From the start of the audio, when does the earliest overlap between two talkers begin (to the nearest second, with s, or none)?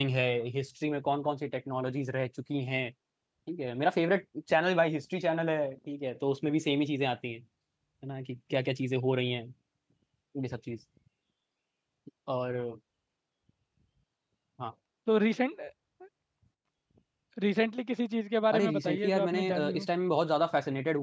19 s